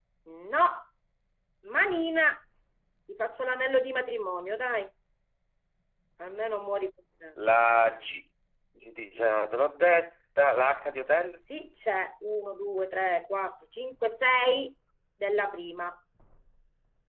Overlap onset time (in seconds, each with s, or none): none